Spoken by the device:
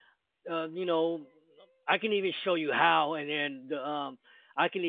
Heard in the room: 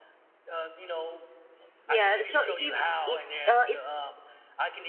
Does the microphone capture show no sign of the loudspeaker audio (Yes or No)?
No